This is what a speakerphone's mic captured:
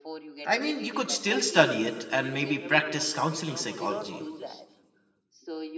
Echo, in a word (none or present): present